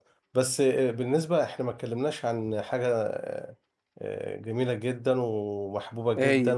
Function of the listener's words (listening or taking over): listening